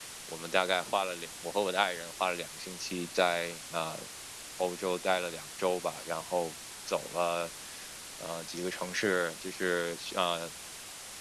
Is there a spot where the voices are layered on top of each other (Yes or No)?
No